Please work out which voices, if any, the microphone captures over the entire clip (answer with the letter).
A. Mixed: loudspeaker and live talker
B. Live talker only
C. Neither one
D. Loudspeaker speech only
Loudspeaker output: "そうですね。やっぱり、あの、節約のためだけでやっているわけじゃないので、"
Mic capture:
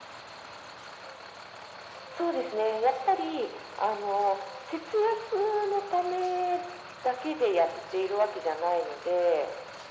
D